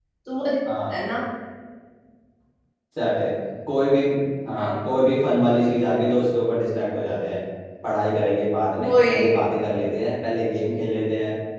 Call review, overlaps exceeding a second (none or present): none